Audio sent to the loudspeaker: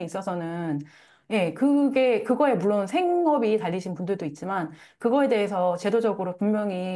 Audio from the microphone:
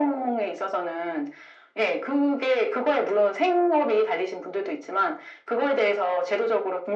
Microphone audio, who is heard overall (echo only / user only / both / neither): echo only